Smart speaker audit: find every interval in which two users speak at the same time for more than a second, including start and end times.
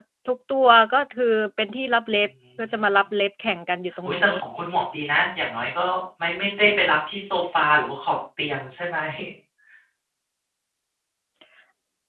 none

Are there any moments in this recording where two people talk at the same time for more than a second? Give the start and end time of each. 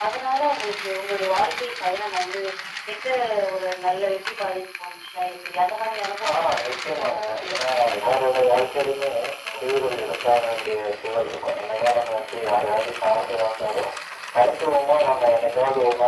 6.3-8.1

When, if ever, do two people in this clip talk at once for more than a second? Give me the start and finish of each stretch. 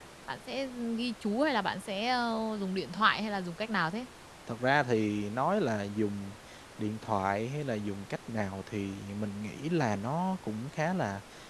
none

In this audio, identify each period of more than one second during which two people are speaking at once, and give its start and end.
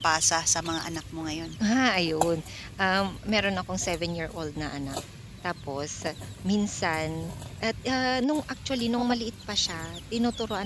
none

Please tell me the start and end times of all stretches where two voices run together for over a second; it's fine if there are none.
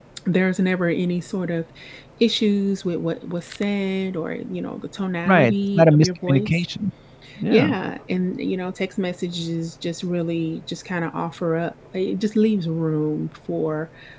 5.2-6.6

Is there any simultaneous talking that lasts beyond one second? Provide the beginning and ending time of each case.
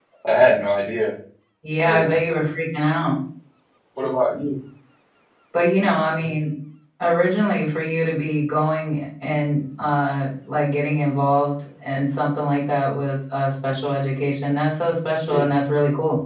none

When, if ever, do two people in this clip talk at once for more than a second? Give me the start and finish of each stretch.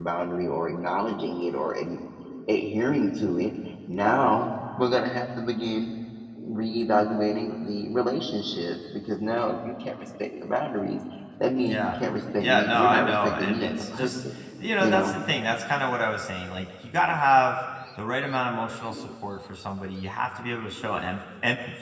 12.4-14.1

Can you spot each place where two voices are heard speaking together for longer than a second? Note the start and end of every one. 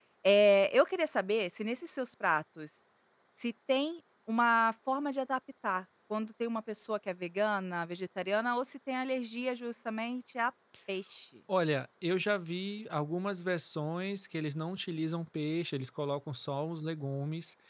none

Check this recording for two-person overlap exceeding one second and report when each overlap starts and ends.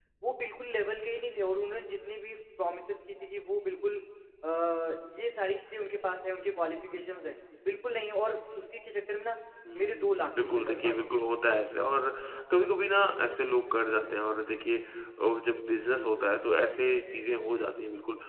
9.8-11.2

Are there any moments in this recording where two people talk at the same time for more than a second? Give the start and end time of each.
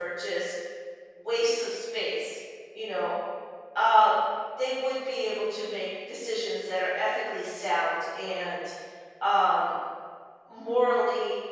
none

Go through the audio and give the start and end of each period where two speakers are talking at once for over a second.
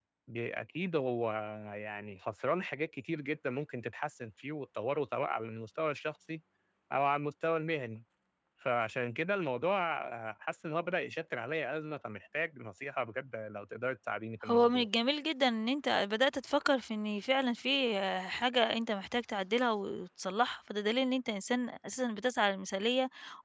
none

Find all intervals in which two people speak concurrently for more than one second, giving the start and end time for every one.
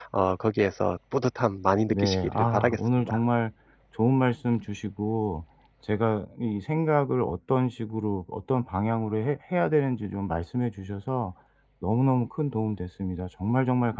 1.9-3.2

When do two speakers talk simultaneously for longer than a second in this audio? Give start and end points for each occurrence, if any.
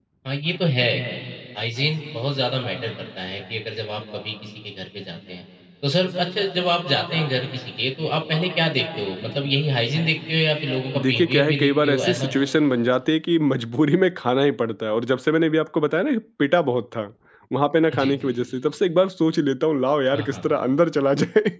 11.0-12.4

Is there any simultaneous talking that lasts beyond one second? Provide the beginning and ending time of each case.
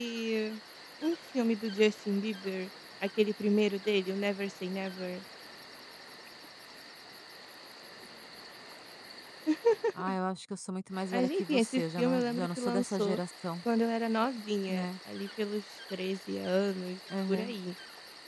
11.1-13.2

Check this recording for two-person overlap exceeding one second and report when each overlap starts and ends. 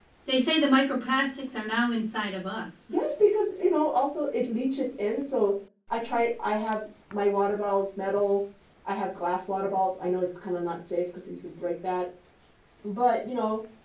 none

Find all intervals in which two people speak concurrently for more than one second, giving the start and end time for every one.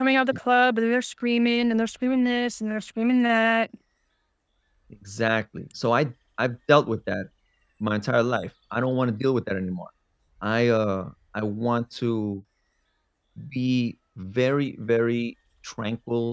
none

